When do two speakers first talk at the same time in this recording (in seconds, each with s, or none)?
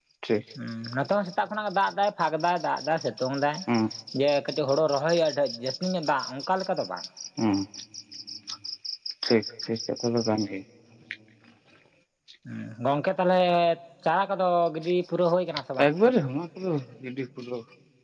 none